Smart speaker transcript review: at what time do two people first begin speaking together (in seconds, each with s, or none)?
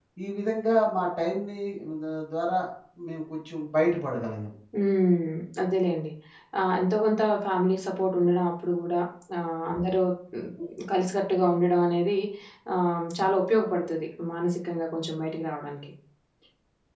none